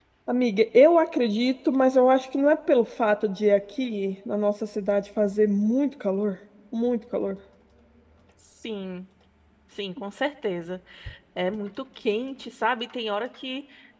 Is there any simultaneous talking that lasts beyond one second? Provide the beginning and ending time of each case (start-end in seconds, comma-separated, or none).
none